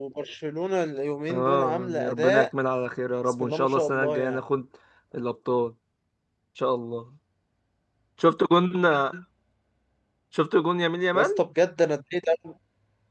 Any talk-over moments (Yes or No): Yes